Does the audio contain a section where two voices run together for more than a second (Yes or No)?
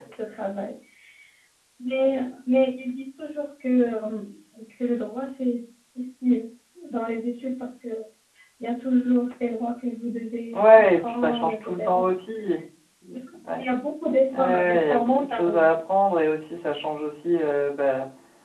Yes